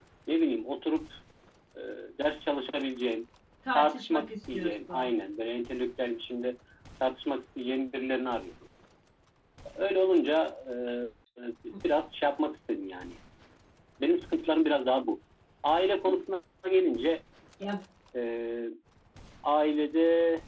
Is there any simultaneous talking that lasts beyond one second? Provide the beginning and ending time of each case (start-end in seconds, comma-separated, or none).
3.8-5.1